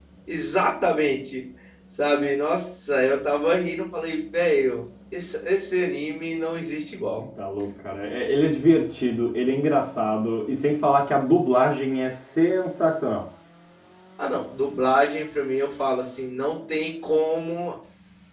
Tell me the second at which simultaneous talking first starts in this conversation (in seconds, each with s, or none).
none